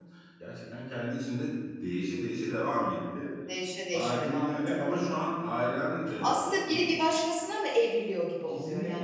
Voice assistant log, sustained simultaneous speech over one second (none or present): present